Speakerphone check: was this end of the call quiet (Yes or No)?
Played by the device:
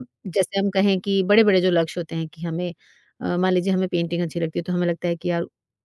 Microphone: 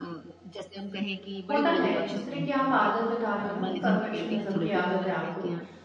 No